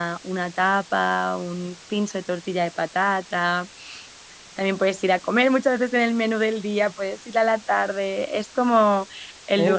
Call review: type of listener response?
listening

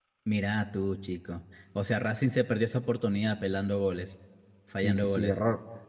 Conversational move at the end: taking over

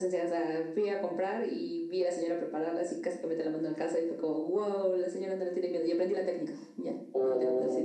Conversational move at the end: taking over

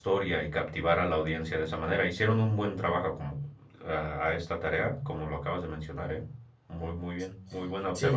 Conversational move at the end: taking over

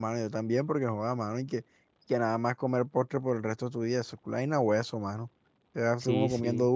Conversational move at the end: listening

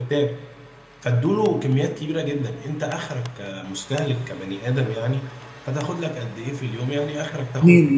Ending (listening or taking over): listening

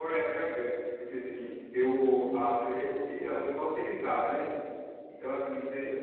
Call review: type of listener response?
listening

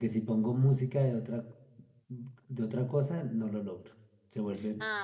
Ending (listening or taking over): taking over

